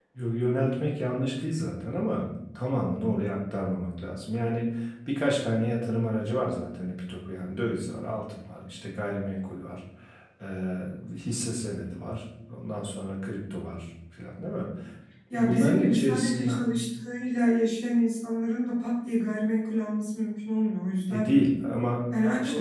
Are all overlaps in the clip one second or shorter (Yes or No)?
No